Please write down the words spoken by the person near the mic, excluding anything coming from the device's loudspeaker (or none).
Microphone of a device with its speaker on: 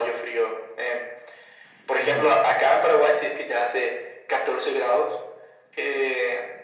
Ah,